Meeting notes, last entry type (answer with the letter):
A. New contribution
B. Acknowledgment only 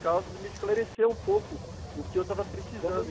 A